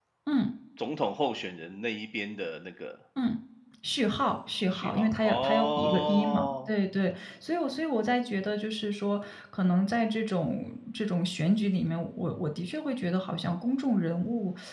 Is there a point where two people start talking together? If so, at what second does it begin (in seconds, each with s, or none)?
4.7 s